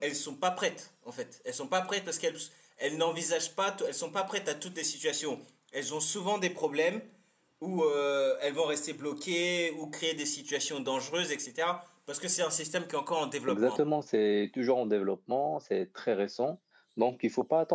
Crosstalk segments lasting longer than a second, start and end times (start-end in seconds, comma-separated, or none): none